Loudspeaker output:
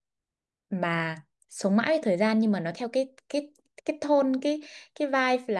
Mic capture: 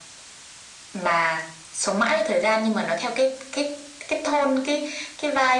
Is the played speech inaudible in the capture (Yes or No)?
No